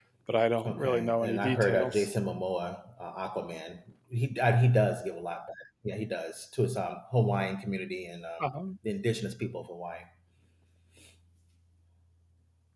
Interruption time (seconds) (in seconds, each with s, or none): 0.6 s